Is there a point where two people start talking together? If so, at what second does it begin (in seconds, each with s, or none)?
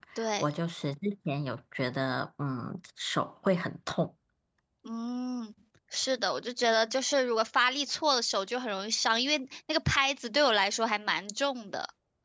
none